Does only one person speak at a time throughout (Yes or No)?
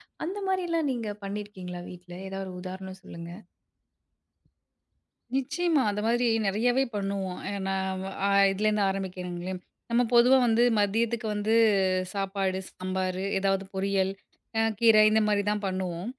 Yes